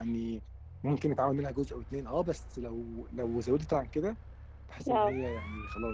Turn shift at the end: No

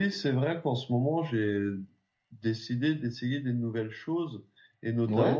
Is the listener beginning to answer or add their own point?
No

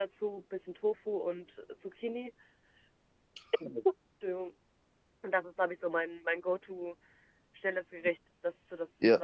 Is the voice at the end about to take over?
Yes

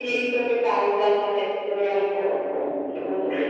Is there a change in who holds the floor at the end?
Yes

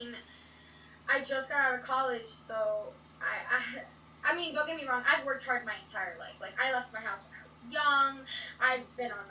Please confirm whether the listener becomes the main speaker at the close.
No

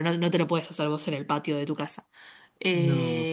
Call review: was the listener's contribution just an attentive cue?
Yes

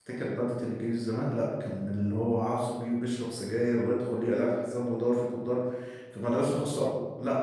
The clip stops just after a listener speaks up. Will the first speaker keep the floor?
Yes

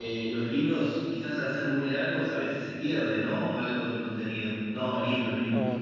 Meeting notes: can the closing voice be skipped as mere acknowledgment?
No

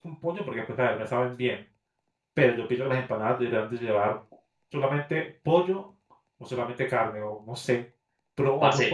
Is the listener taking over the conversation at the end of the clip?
Yes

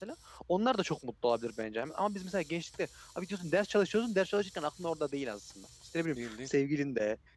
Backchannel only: Yes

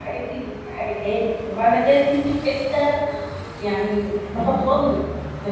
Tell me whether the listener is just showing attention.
Yes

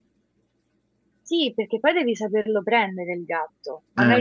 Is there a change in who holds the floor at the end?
No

